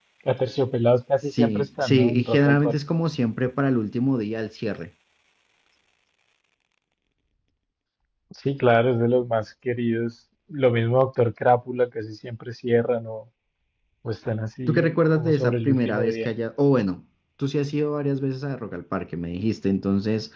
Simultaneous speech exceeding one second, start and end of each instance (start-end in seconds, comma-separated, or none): 1.2-2.8, 14.7-16.3